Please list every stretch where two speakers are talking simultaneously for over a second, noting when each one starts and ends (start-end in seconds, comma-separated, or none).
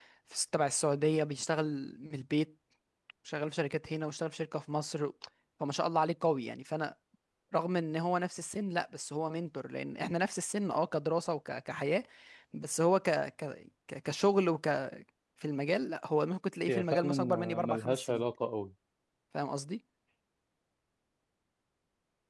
16.7-18.2